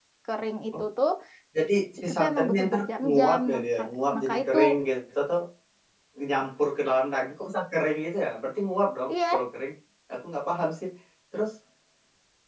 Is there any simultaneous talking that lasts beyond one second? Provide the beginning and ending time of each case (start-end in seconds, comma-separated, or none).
2.1-4.6